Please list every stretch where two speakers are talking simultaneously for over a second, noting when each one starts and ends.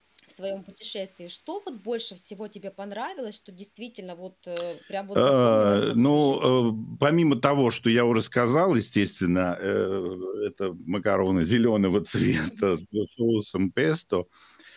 5.2-6.5

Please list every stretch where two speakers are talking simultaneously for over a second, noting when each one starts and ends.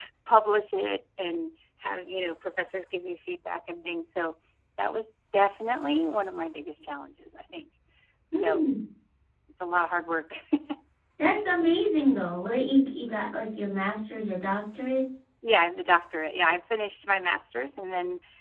none

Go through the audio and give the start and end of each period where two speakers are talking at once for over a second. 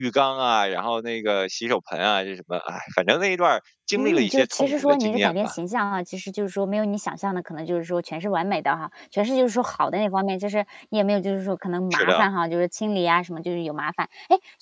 4.0-5.5

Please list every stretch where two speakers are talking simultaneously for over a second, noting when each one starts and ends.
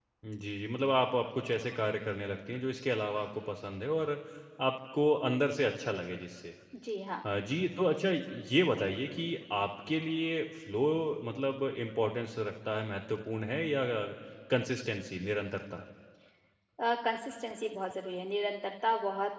none

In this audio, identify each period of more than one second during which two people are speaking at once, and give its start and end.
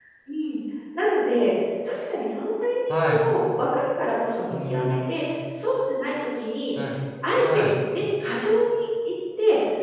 none

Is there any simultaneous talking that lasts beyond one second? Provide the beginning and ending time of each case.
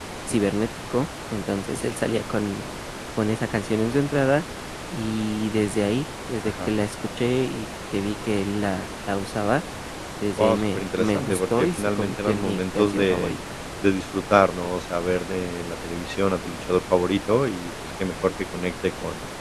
10.4-13.3

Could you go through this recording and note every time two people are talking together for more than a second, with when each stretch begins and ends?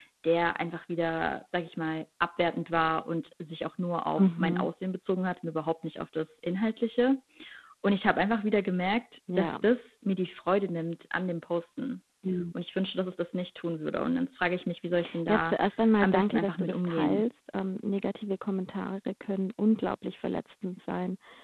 16.0-17.2

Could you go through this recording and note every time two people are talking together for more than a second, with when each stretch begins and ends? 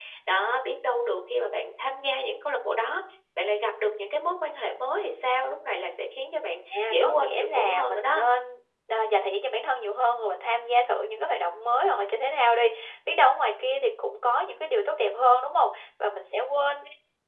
6.9-8.2

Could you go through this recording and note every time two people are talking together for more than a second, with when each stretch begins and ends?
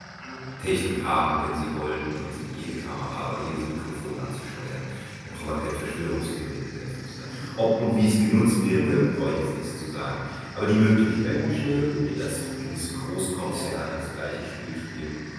11.3-13.0

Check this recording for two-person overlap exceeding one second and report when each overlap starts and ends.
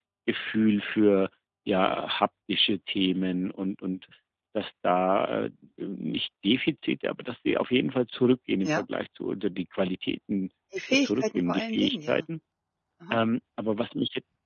10.9-12.2

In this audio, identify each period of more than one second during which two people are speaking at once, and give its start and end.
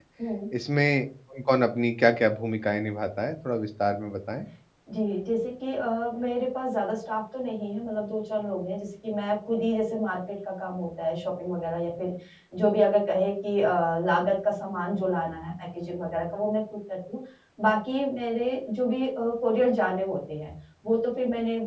none

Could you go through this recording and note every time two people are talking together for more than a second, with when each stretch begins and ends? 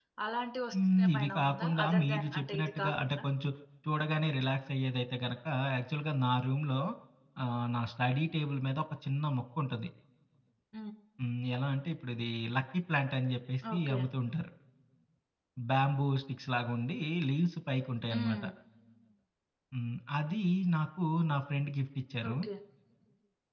0.7-3.2

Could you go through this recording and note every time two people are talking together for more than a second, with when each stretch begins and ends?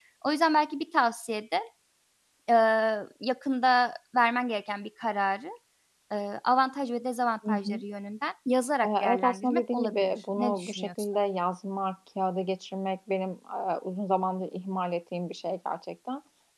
8.8-11.1

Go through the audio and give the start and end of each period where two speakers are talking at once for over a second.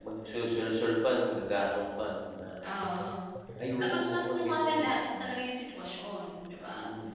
3.8-5.3

